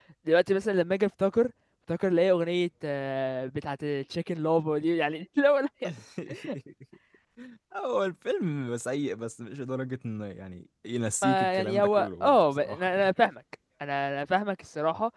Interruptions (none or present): present